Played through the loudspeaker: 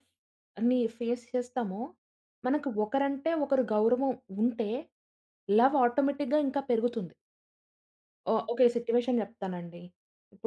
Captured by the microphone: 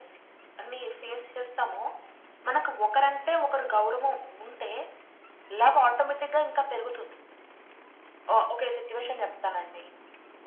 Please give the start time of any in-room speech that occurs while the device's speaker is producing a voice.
none

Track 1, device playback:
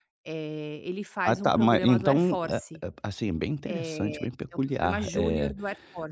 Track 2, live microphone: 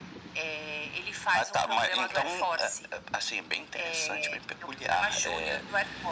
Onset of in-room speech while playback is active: none

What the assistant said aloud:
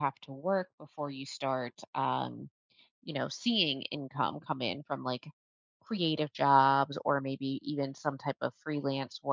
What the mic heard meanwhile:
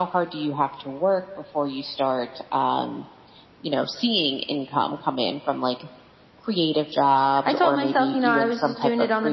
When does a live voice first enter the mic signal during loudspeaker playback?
7.4 s

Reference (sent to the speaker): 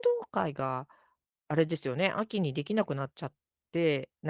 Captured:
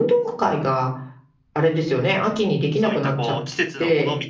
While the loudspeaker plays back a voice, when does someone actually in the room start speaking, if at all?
2.7 s

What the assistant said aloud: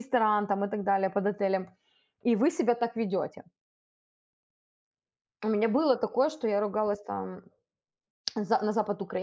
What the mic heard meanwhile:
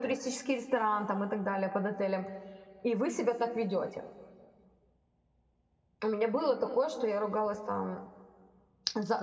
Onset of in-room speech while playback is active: none

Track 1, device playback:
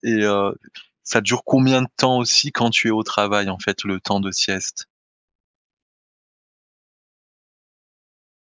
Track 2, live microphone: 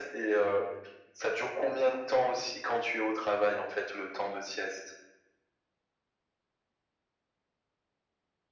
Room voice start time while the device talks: none

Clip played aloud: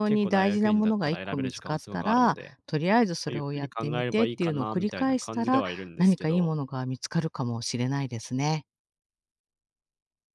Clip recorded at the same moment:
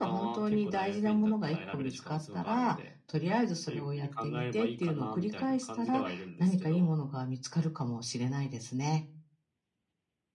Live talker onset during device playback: none

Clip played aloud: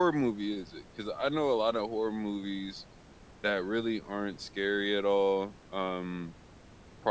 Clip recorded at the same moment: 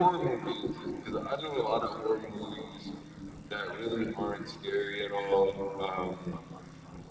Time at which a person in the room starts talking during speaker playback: none

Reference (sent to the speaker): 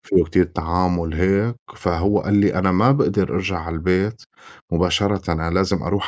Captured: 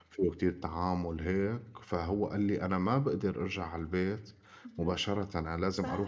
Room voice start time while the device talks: 4.7 s

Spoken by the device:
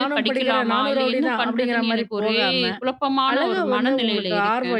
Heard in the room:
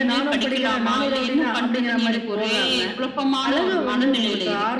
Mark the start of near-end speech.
none

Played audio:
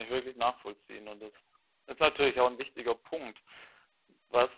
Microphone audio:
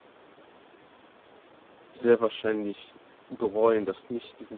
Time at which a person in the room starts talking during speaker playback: 1.9 s

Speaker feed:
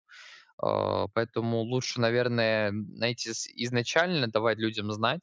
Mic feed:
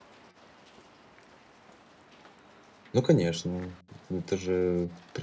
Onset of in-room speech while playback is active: 2.9 s

